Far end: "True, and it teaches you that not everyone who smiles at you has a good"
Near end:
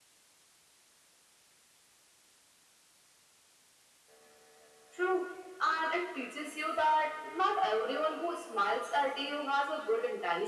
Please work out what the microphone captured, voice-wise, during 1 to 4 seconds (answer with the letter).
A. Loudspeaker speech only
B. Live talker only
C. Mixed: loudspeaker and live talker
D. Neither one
D